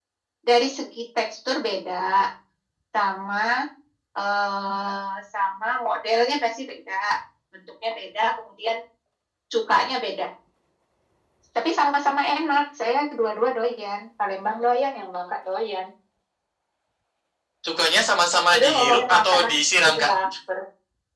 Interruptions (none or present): present